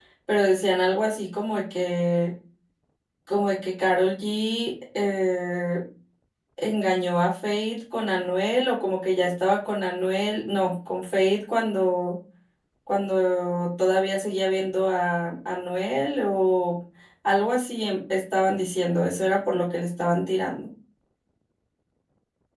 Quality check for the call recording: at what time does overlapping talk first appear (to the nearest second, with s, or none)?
none